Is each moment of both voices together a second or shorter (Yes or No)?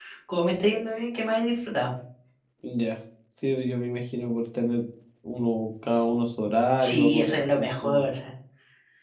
No